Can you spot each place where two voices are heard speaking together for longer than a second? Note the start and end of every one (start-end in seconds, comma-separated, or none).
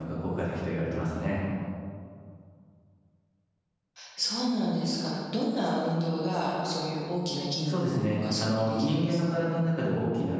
7.7-9.4